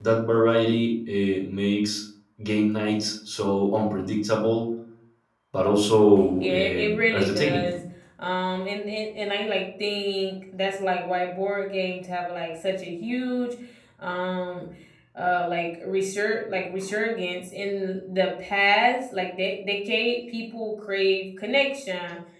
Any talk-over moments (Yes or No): Yes